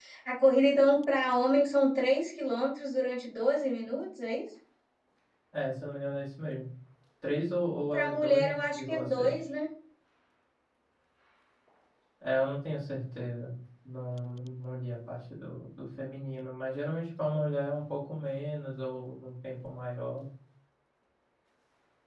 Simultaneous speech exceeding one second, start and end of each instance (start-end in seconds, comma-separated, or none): 7.9-9.4